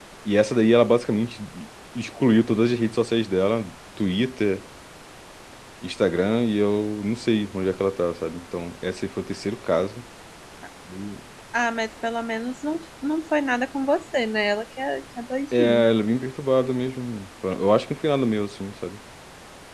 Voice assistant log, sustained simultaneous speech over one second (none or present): none